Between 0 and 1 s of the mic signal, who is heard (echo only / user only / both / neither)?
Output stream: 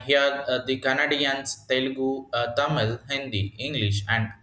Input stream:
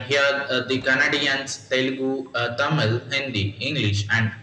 echo only